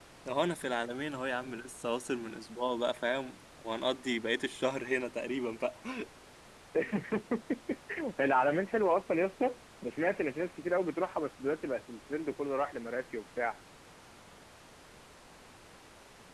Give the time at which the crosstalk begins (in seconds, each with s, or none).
none